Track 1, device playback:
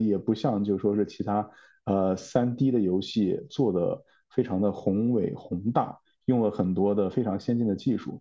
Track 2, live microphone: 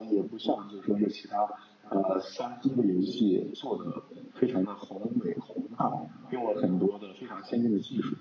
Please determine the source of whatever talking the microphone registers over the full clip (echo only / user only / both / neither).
echo only